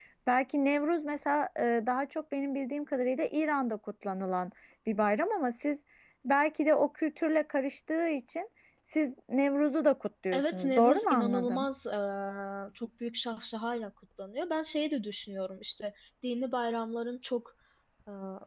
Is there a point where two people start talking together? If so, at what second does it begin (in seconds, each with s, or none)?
10.3 s